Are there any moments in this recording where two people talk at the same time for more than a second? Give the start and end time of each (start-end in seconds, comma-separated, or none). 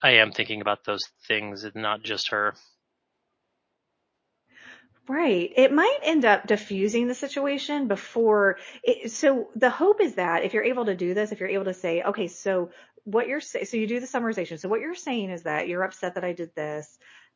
none